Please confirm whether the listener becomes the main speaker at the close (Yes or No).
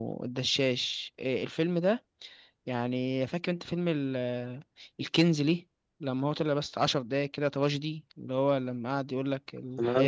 No